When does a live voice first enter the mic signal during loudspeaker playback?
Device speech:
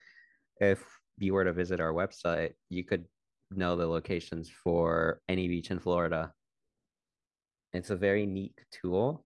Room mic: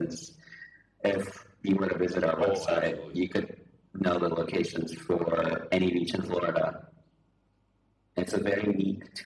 2.4 s

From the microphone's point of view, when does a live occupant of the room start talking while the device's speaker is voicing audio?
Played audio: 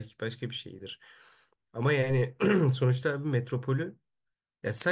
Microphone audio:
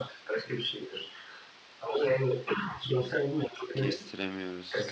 3.8 s

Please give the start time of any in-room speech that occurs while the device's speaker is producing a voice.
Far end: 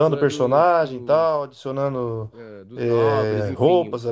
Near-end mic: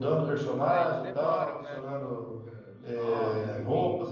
0.6 s

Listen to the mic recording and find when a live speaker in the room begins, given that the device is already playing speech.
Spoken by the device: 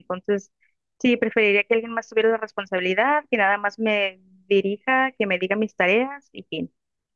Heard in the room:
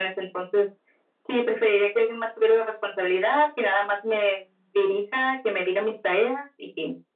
none

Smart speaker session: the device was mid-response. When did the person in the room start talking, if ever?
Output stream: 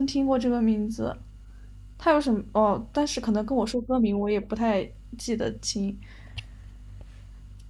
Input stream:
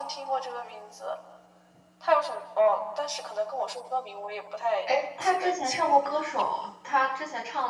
4.8 s

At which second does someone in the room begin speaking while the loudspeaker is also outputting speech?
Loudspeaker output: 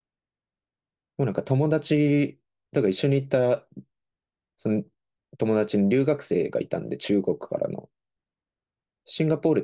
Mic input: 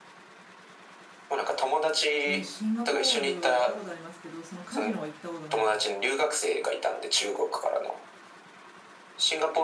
2.2 s

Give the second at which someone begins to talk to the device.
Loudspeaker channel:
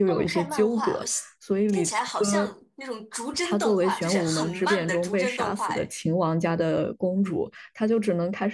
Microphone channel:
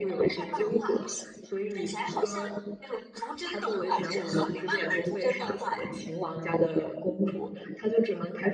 none

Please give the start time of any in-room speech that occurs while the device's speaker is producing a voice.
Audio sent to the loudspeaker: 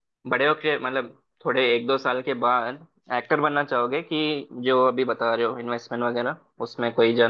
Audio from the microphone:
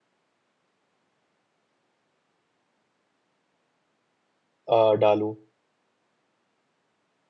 4.7 s

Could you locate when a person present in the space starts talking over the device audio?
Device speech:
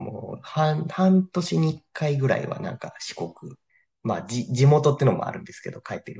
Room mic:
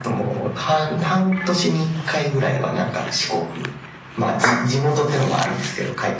none

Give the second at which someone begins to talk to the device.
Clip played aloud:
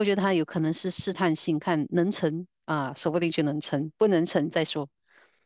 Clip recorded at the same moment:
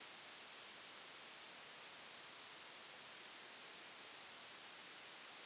none

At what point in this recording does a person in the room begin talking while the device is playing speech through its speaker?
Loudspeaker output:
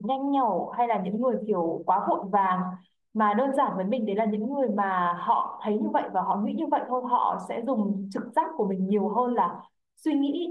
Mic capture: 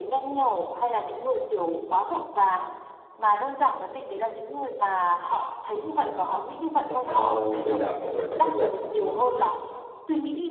6.8 s

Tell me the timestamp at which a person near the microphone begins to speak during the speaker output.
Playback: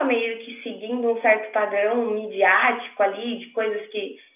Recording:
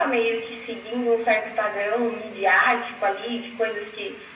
none

